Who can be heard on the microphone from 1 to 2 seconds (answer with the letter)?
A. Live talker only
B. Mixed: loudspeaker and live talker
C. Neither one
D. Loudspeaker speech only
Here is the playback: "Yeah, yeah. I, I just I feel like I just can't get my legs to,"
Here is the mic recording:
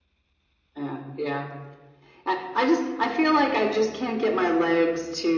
D